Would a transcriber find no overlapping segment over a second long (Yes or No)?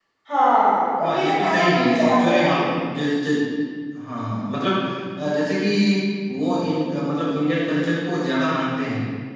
No